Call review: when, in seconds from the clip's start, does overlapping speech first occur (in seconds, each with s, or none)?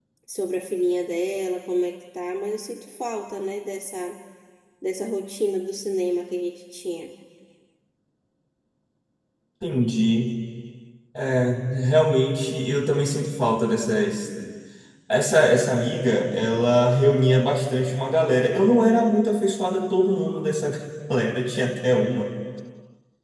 none